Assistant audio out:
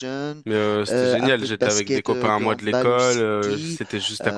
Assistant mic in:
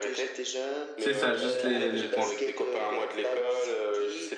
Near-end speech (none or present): present